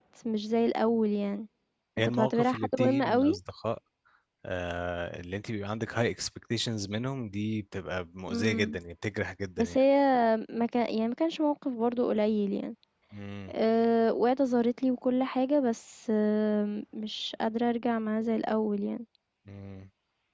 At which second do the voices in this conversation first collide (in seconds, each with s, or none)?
2.0 s